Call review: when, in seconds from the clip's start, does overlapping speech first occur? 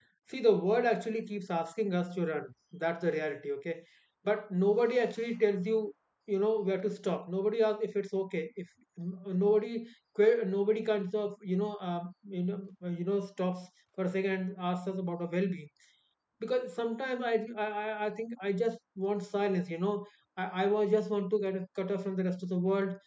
none

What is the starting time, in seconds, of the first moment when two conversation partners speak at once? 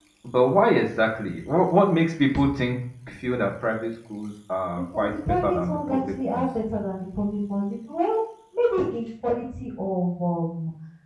4.9 s

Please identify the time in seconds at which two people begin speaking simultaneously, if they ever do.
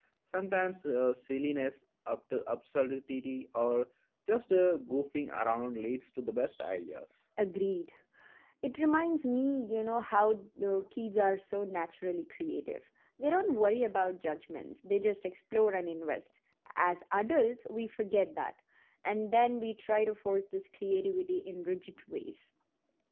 none

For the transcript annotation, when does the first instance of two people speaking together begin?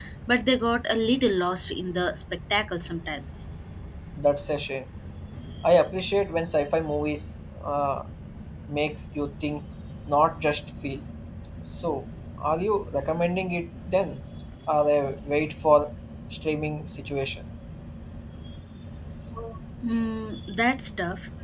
none

